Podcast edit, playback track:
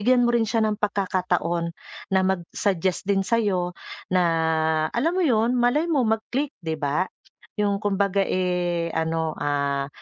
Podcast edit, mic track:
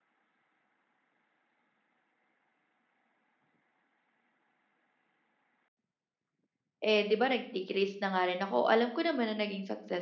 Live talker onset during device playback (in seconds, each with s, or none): 6.8 s